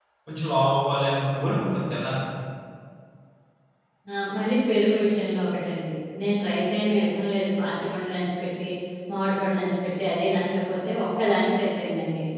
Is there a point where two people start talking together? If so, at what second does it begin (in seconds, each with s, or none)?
none